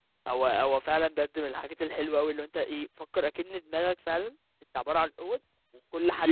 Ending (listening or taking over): listening